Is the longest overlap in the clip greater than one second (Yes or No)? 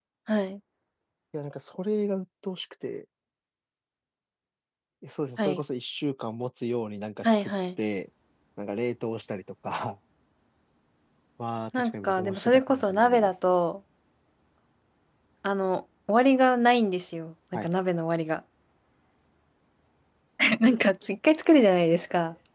Yes